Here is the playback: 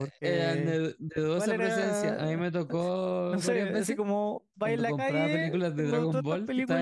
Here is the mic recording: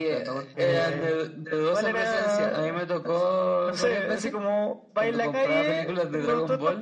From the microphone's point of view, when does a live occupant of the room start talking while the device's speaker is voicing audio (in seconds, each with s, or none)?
0.5 s